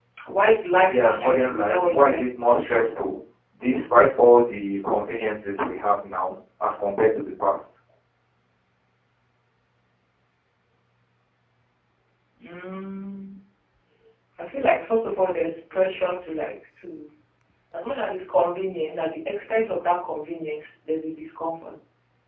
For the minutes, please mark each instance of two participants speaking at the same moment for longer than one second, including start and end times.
0.9-2.2

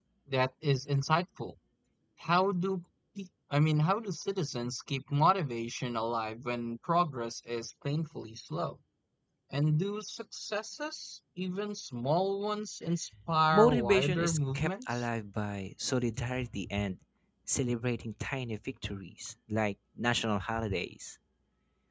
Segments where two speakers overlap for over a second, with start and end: 13.5-15.0

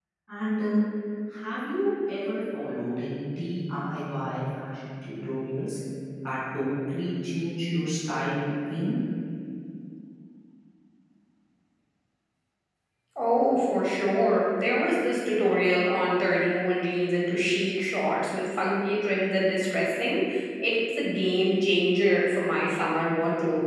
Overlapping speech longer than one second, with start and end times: none

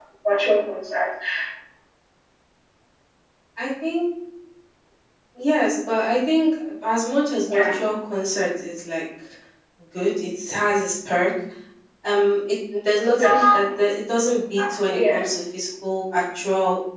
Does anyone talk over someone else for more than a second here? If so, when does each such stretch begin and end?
none

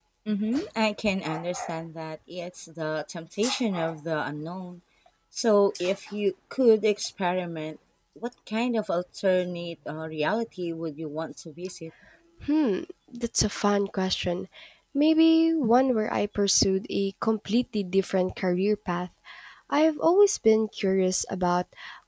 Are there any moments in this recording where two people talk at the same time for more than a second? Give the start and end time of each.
none

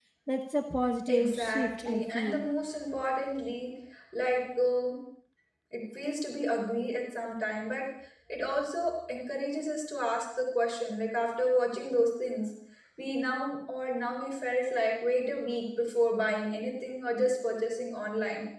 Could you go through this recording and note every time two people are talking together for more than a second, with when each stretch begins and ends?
1.1-2.4

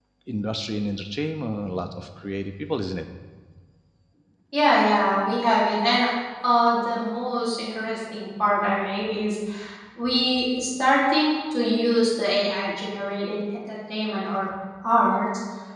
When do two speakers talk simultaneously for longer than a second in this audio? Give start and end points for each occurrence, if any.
none

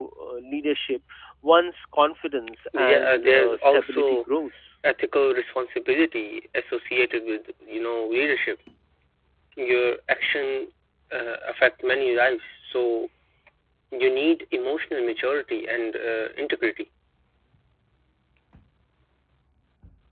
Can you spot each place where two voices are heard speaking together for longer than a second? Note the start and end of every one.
2.8-4.2

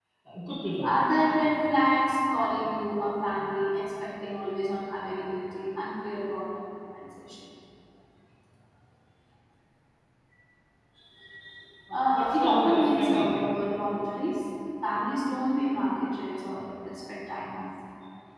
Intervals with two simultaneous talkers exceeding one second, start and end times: 11.9-13.5

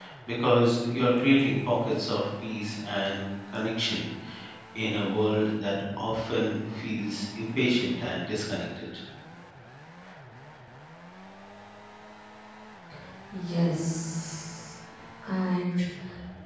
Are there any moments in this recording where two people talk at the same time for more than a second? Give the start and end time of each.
none

